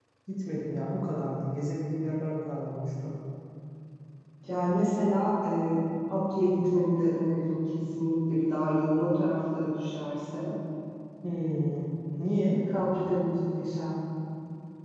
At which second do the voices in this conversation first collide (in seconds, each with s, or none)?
none